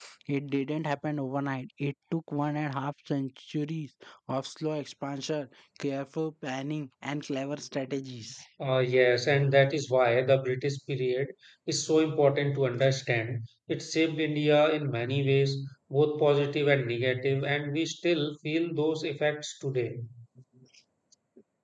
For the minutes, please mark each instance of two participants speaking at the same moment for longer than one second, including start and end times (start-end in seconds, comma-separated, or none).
none